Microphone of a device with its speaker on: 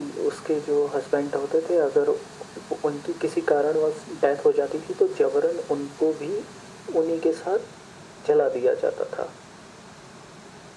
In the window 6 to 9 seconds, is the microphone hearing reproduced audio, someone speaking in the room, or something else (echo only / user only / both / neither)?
echo only